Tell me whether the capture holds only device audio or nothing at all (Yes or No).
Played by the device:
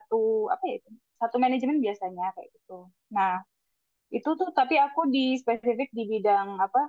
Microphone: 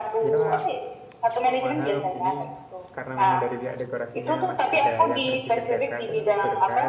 No